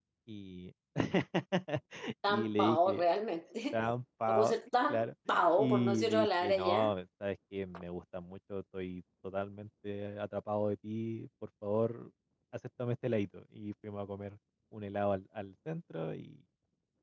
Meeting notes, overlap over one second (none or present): present